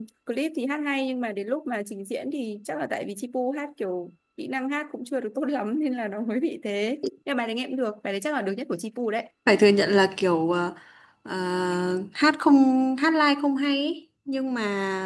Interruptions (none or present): none